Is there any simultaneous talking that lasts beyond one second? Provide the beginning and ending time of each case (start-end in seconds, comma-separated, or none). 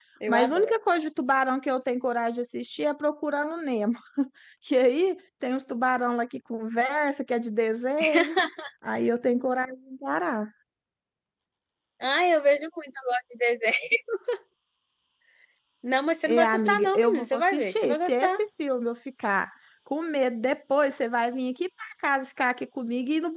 16.2-18.4